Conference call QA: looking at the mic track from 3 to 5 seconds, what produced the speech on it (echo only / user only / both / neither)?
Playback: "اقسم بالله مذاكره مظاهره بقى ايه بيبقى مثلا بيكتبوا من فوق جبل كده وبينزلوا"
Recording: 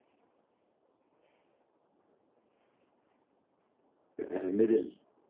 user only